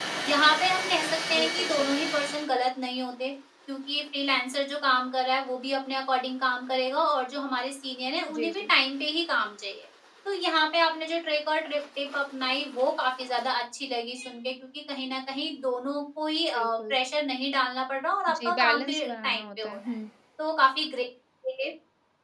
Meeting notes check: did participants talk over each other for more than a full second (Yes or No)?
Yes